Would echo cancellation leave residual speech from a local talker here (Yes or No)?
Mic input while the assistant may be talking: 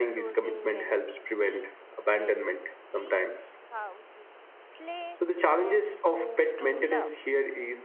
Yes